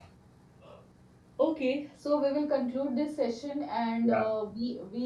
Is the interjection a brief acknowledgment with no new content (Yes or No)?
Yes